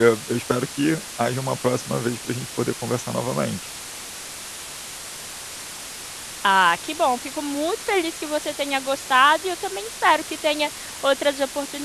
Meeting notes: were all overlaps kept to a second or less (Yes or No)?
Yes